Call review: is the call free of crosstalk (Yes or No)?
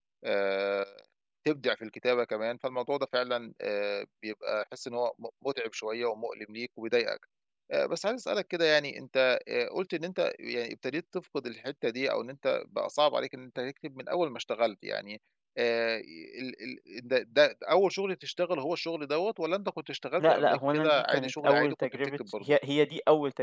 No